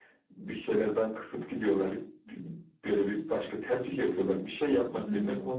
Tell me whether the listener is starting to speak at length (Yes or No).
No